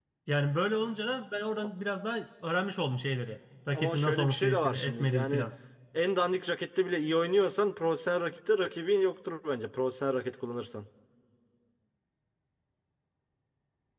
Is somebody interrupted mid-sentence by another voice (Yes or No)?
Yes